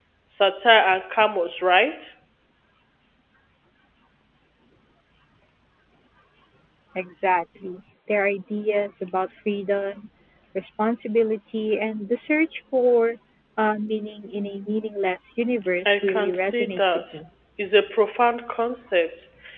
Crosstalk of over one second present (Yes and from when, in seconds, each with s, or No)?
Yes, from 15.8 s